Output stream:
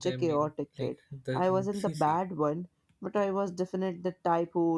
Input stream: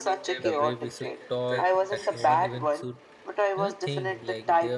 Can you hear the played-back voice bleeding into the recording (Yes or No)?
Yes